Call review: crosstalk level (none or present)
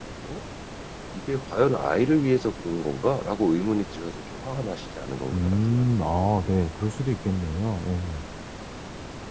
present